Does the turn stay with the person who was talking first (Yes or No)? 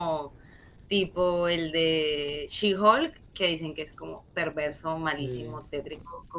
Yes